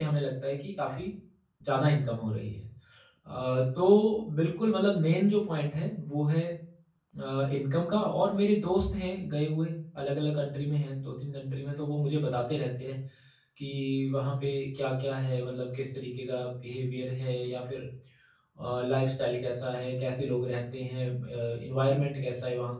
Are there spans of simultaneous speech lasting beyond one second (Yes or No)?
No